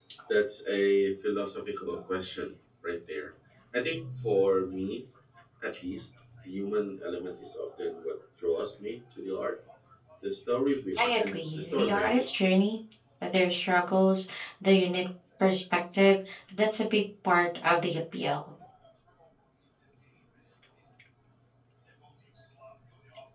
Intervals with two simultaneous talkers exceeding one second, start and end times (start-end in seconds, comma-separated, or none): 11.0-12.2